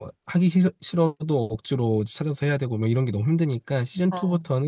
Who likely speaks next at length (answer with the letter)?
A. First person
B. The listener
A